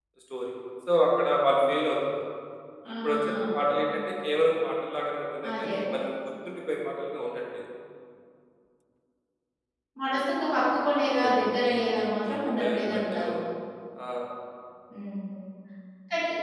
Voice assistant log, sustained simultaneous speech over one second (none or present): present